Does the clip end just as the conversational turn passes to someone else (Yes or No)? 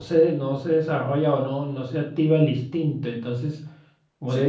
No